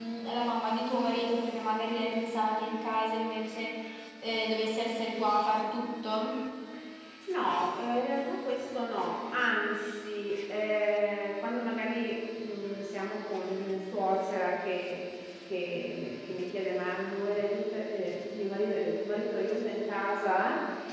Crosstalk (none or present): none